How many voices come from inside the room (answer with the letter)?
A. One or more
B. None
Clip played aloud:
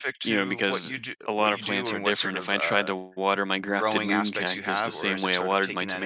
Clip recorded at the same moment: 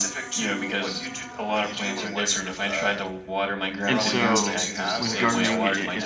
A